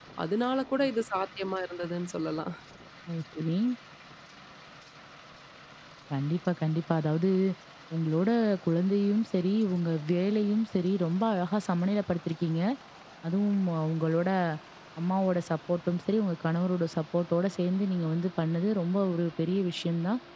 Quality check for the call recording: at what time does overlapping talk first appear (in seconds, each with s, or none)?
none